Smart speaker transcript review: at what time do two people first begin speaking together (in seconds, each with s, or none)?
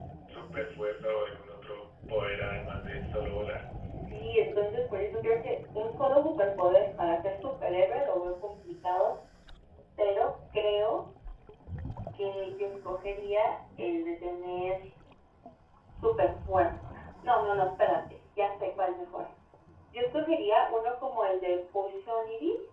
none